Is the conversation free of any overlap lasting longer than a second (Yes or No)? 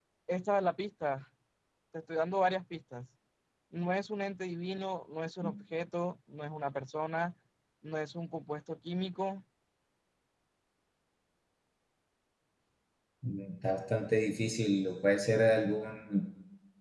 Yes